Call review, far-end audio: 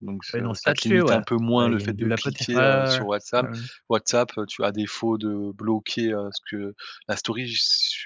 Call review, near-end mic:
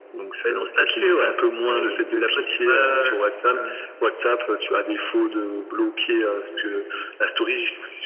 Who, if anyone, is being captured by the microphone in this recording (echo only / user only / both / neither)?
echo only